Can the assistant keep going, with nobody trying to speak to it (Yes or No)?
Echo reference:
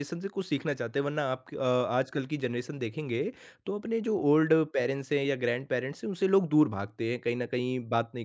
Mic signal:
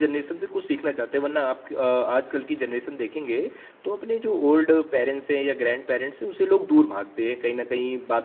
Yes